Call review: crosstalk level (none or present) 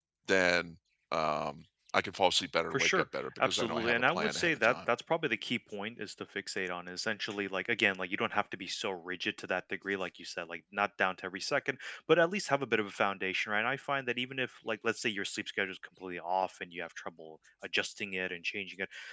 present